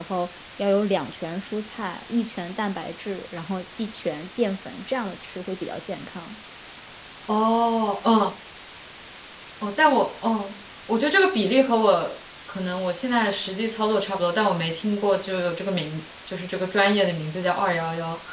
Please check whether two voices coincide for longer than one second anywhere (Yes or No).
No